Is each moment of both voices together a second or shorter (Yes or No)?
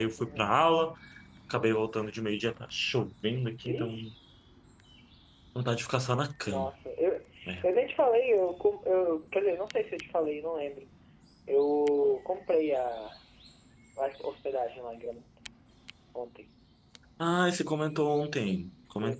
Yes